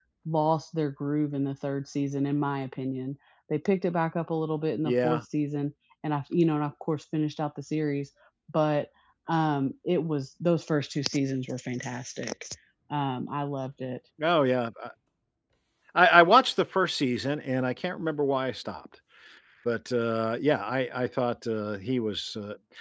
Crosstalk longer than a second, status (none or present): none